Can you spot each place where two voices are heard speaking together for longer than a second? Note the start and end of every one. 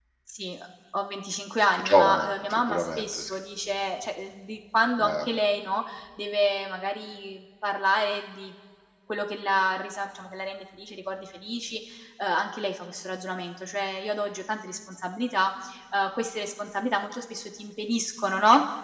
1.7-3.3

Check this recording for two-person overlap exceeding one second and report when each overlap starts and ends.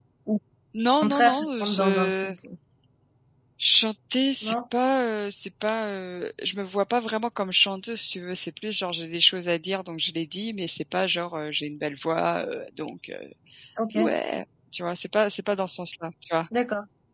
1.0-2.3

